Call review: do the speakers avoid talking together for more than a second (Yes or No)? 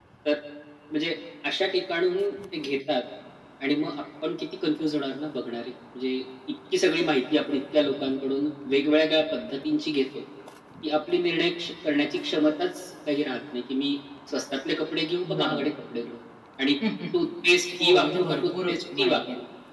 No